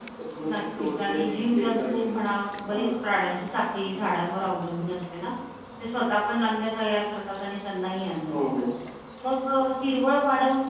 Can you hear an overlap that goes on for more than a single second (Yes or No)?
Yes